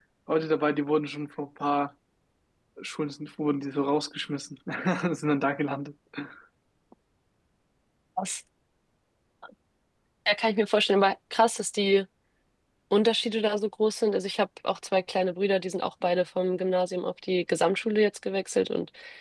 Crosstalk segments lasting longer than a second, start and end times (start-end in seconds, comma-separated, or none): none